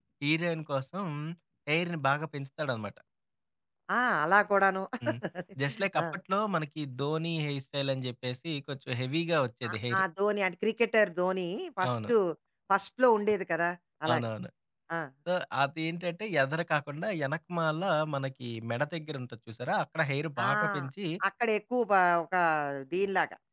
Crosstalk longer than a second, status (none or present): none